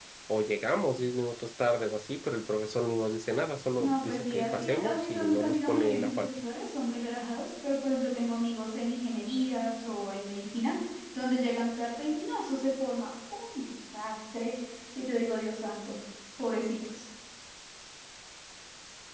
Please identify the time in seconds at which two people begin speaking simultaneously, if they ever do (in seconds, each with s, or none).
3.8 s